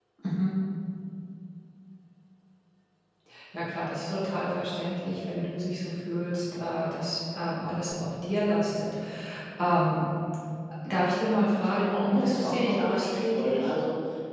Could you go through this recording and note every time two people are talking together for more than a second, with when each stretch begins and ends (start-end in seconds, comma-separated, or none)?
11.6-13.7